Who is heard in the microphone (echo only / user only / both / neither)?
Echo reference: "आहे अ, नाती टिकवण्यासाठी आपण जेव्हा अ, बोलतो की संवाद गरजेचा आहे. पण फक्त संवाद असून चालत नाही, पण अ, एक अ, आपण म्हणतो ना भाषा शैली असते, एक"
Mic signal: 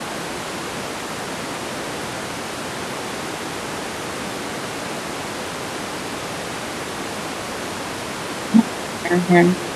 user only